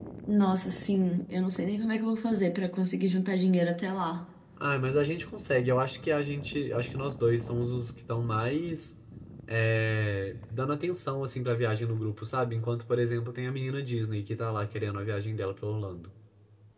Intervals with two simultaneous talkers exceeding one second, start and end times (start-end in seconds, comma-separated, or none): none